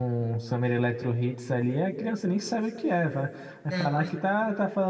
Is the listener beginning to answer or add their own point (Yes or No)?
No